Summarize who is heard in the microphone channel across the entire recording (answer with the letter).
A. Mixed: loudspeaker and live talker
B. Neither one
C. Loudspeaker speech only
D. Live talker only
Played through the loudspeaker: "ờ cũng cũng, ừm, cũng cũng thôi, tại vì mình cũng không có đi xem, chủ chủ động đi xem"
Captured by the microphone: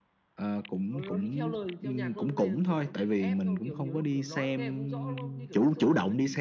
A